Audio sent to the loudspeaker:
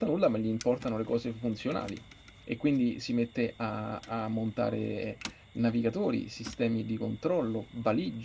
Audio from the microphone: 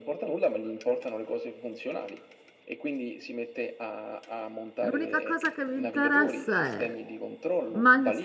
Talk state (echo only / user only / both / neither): both